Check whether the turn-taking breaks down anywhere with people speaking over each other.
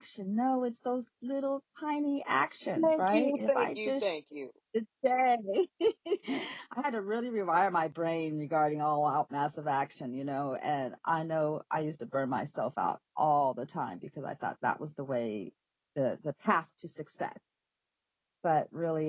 Yes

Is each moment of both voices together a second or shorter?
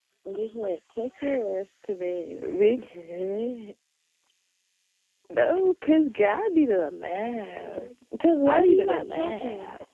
No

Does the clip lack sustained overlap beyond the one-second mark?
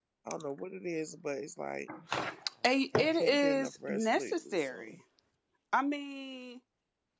No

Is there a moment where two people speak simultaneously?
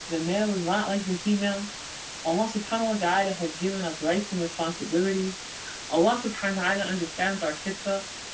No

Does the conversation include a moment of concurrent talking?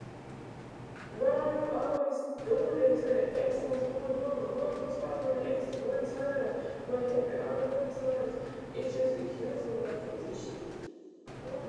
No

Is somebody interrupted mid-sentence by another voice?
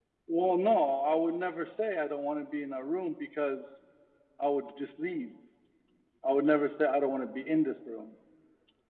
No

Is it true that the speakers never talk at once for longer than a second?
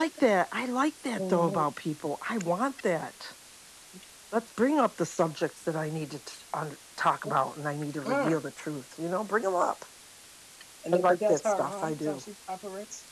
No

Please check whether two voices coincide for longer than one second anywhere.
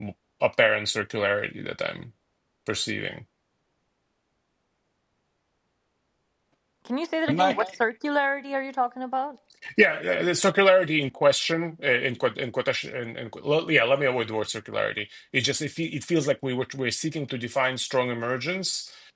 No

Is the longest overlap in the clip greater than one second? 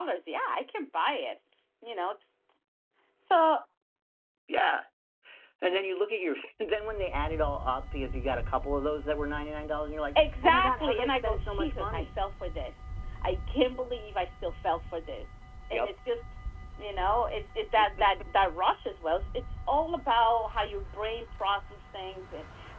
Yes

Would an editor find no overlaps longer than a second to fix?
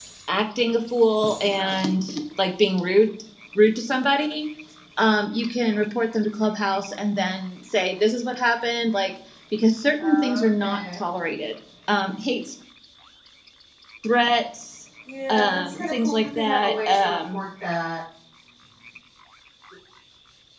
No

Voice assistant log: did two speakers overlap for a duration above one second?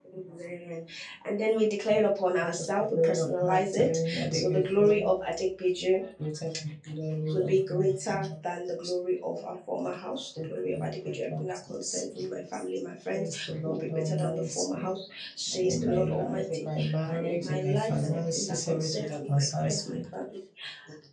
Yes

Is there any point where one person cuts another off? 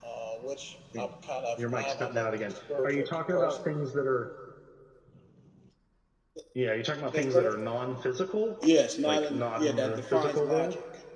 Yes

